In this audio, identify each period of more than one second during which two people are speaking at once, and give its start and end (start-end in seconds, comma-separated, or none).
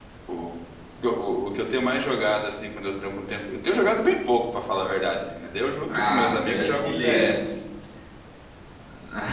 5.9-7.4